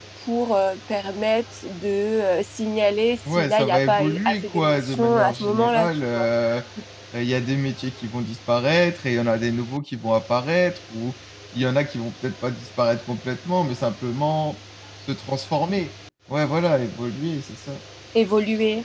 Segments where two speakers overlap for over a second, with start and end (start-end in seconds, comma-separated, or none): 3.2-6.3